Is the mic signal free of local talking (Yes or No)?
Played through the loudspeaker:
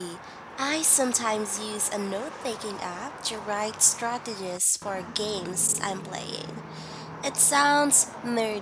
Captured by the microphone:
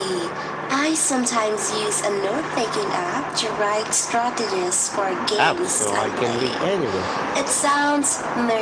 No